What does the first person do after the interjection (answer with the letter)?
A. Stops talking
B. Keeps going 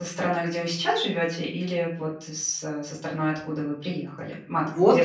A